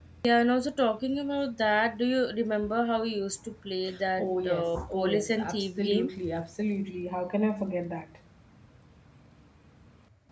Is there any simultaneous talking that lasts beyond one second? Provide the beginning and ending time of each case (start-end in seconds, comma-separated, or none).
4.2-6.1